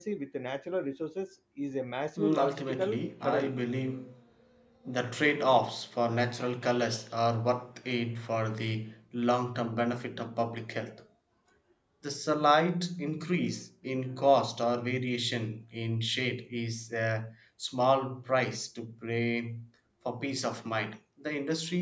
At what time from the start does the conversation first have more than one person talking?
2 s

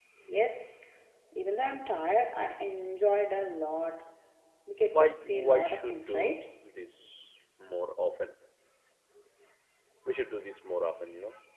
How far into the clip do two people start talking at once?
5 s

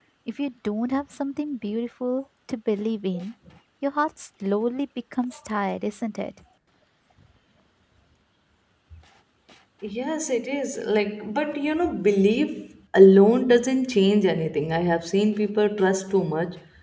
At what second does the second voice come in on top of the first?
none

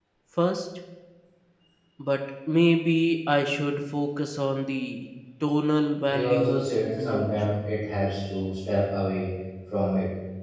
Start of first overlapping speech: 6 s

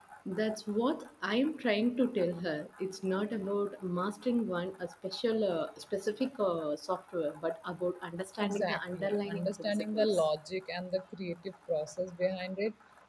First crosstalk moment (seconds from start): 8 s

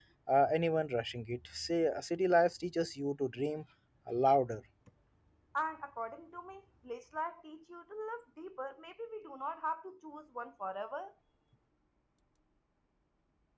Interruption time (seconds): none

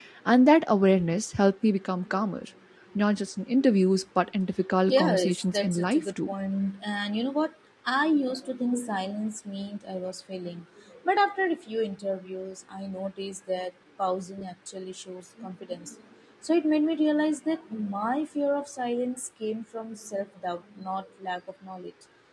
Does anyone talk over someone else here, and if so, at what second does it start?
5 s

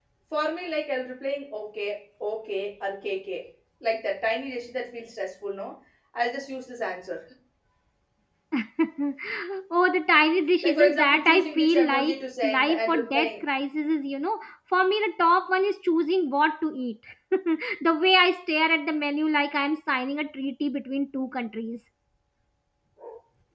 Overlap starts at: 11 s

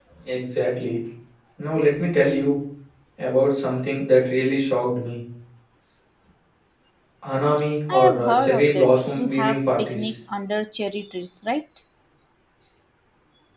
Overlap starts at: 8 s

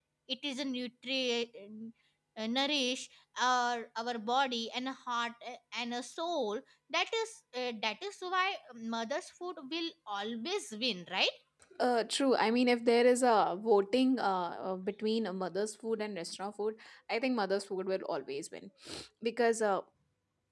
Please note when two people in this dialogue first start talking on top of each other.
none

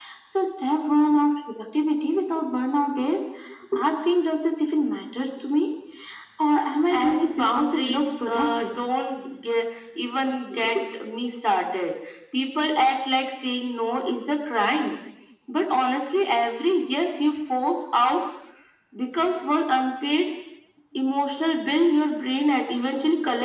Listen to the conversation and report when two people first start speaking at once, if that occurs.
7 s

